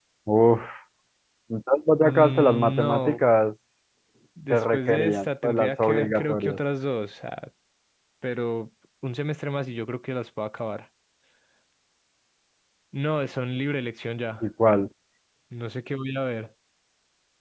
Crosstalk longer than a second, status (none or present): present